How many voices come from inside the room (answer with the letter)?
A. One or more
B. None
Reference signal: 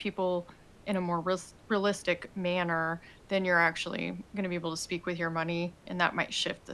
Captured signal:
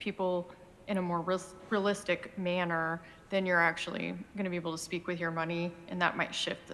B